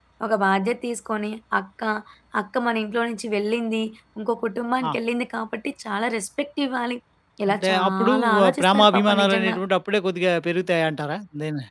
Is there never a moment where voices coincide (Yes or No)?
No